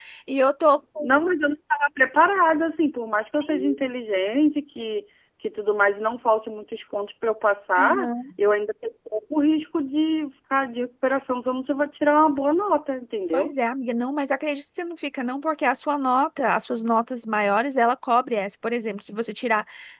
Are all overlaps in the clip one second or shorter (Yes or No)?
Yes